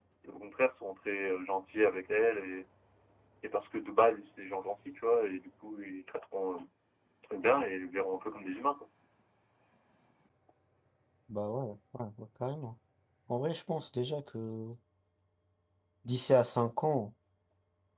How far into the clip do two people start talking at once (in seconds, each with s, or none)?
none